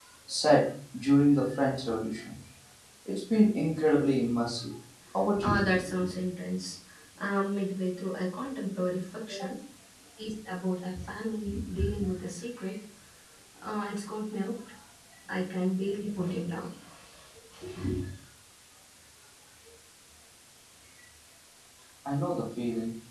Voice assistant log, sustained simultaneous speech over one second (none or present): none